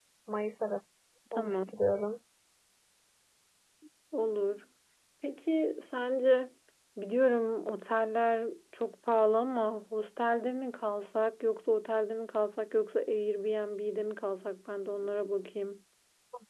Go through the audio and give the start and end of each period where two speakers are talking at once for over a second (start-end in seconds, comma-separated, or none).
none